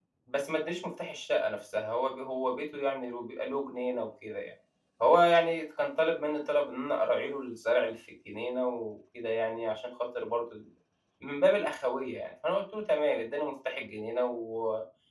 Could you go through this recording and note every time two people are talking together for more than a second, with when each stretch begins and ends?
none

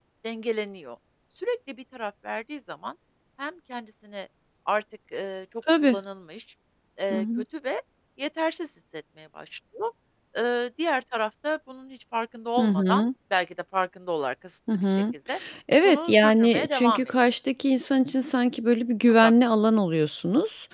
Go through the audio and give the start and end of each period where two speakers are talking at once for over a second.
15.8-17.1

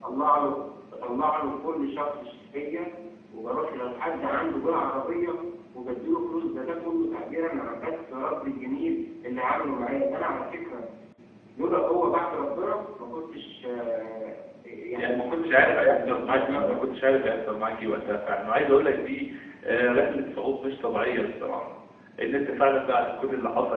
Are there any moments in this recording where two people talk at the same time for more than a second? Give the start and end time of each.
15.0-16.8

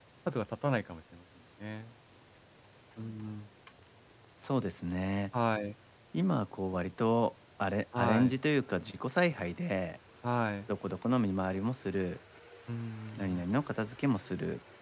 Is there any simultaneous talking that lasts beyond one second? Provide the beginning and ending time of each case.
none

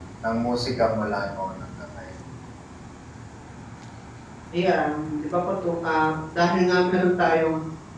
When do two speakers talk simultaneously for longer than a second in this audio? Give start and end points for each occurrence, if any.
none

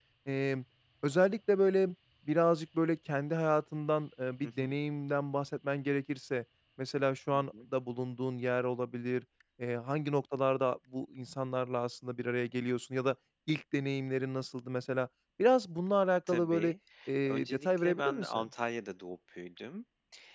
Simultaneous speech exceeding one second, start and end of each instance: 17.3-18.5

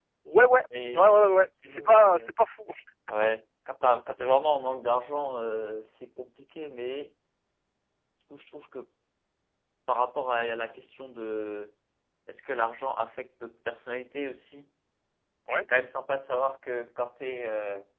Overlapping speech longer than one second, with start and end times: 0.9-2.3

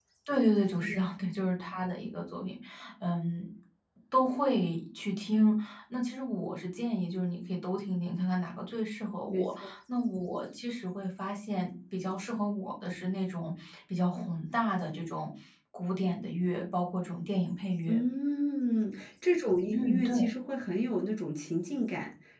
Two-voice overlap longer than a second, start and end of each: none

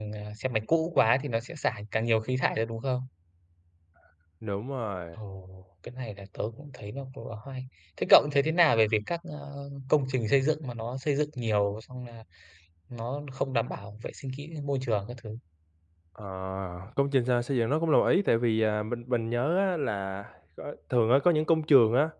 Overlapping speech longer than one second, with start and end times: none

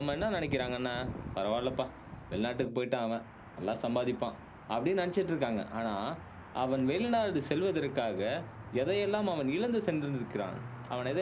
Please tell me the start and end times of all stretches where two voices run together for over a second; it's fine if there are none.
none

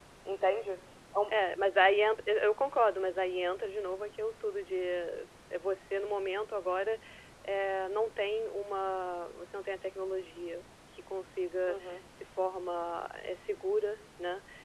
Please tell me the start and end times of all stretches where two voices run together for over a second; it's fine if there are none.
none

